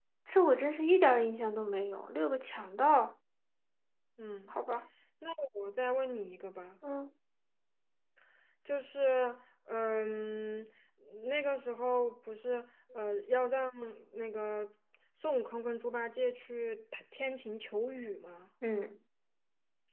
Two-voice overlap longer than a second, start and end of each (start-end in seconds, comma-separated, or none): none